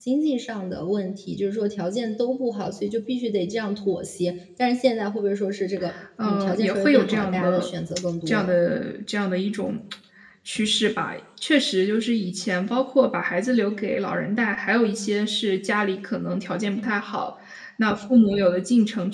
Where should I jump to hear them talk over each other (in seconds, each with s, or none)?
6.2 s